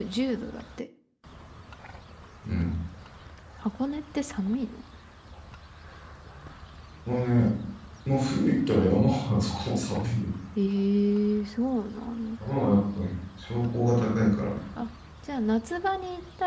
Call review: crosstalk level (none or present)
none